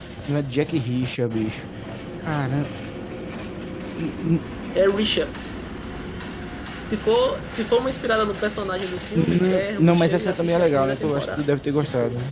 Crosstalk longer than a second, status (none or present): present